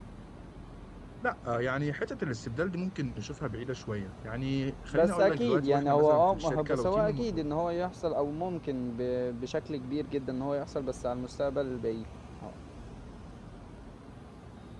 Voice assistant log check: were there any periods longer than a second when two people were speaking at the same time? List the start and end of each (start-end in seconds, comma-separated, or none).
4.9-7.4